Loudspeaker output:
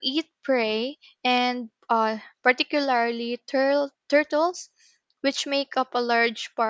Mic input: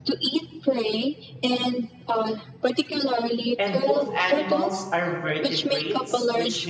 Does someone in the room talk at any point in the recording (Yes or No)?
Yes